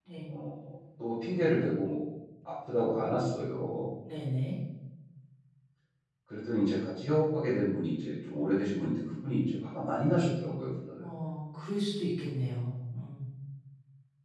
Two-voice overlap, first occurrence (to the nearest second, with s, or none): none